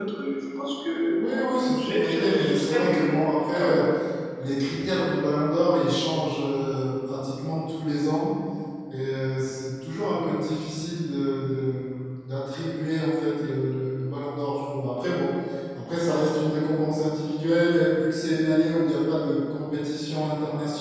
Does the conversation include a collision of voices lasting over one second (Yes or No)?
Yes